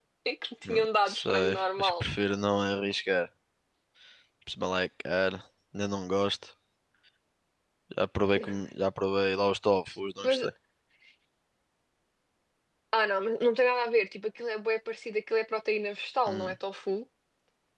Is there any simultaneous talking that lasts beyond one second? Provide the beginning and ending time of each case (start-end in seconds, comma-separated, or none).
0.7-2.0